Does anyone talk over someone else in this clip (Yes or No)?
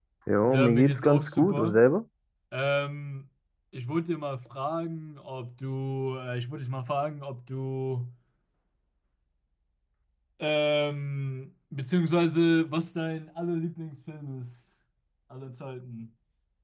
Yes